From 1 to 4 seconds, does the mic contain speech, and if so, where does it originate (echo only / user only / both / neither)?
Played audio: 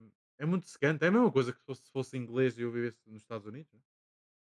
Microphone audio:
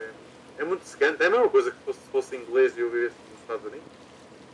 echo only